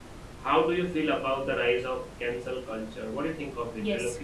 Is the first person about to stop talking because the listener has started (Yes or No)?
Yes